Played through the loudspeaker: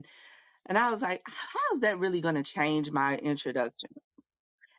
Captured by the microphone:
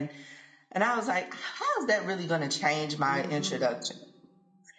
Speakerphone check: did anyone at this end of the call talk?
Yes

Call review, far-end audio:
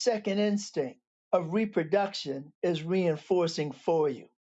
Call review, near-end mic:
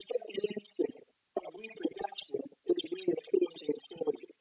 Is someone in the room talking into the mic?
No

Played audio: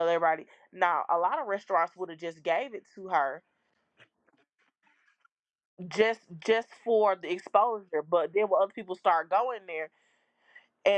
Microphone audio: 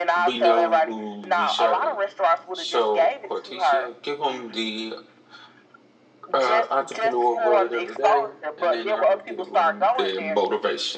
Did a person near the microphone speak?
Yes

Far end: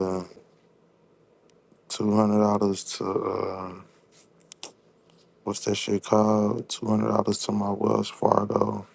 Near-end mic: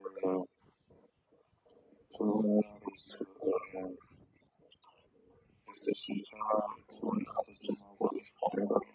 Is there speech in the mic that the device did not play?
No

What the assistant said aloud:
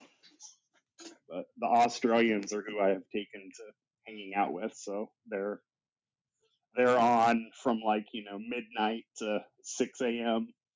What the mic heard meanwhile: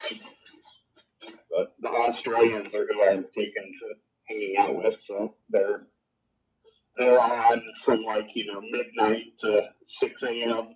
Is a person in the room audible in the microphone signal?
No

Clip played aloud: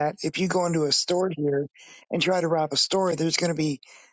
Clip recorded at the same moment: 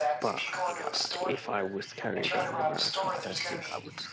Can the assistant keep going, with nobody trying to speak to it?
No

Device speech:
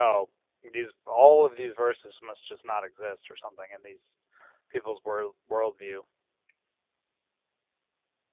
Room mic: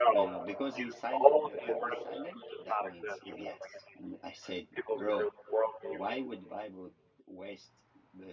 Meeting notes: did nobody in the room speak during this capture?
No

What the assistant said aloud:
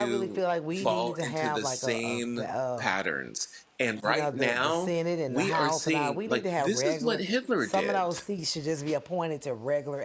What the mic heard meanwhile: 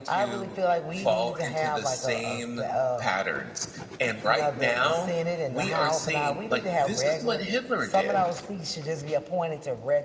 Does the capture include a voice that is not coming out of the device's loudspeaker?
No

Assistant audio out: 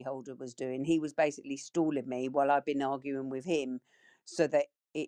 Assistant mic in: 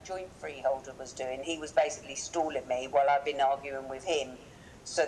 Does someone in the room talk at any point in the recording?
No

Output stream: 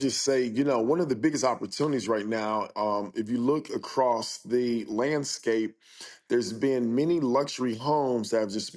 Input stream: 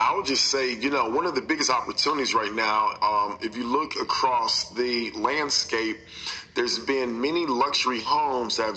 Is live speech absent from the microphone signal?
Yes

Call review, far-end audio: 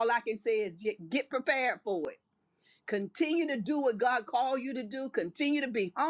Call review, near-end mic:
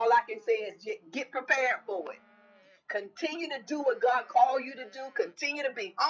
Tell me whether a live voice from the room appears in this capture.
No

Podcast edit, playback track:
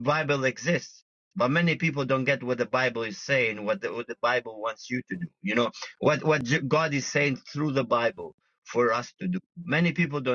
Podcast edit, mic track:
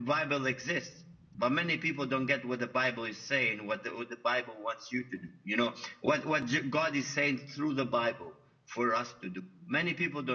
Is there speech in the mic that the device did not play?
No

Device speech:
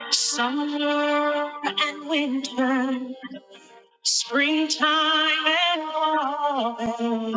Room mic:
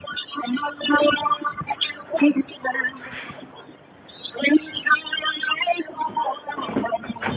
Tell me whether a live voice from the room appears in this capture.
No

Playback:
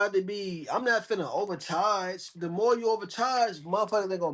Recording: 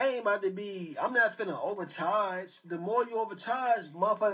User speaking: No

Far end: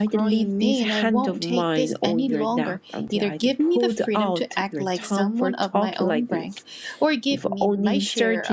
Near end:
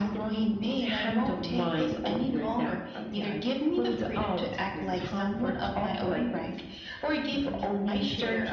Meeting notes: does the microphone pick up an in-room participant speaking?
No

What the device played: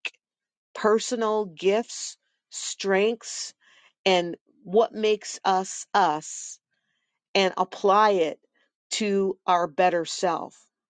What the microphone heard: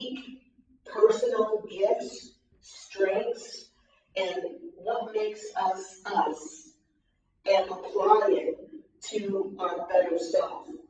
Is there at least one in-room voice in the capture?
No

